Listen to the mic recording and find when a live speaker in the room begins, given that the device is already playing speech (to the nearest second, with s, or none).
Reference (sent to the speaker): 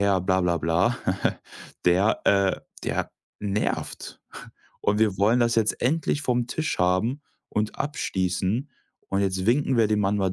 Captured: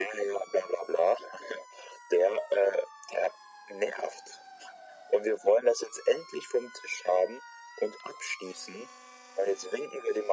none